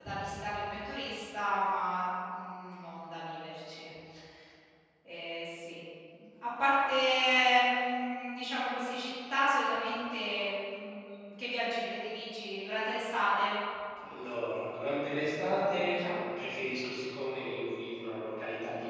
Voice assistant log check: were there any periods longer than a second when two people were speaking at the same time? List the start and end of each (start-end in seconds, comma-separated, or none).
none